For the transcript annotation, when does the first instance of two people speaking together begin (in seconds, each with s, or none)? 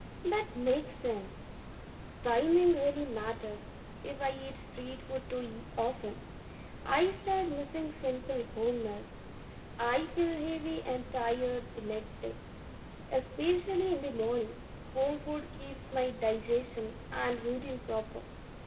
none